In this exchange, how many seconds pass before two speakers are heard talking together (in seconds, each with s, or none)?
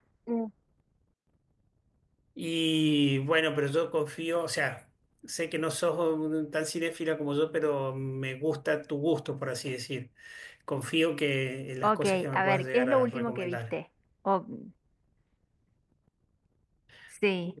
11.8 s